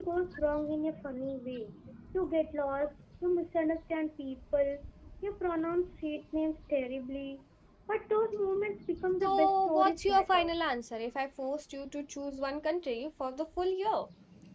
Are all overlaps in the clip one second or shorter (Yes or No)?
No